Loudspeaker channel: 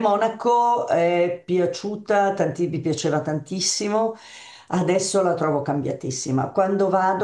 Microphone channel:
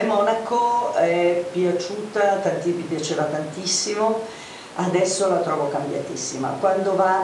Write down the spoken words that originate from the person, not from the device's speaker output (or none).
none